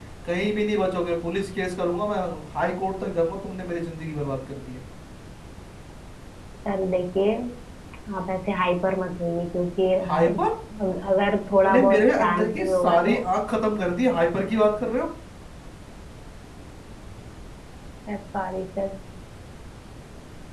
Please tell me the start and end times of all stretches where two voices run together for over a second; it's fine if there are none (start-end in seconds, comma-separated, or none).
11.5-13.2